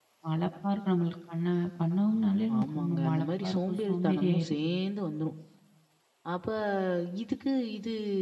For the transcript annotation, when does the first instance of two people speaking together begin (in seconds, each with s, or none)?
2.5 s